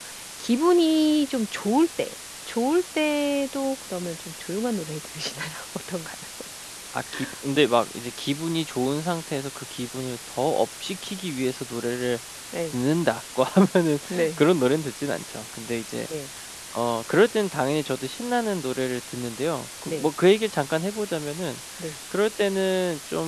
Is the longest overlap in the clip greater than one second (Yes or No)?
No